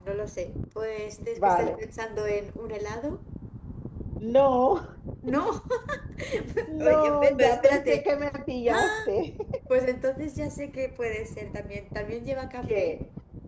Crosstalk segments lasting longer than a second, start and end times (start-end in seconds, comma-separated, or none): 6.8-8.0